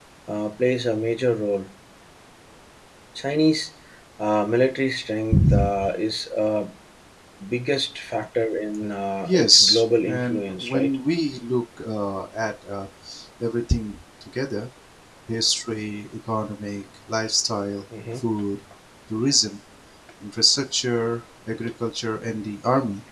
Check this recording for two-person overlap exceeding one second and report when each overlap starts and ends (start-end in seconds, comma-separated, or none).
9.2-10.9